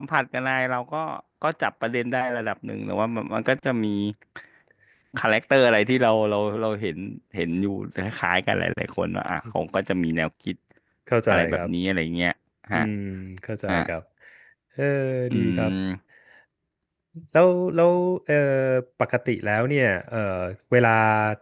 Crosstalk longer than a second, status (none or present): none